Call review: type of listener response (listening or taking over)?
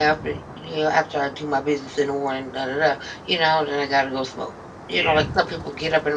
listening